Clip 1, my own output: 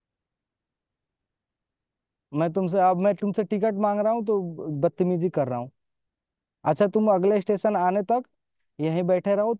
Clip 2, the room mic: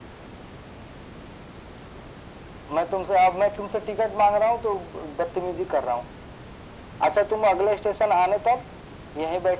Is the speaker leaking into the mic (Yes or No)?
Yes